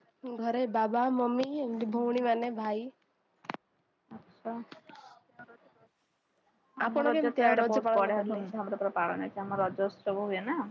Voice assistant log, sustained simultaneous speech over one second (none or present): present